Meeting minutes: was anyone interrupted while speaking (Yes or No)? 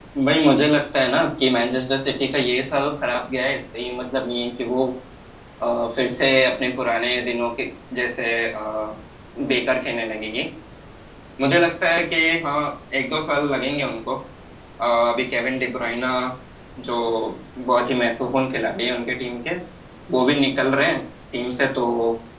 No